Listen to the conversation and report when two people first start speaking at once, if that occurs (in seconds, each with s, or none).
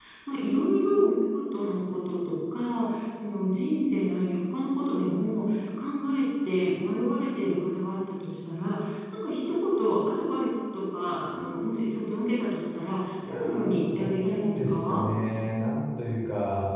13.2 s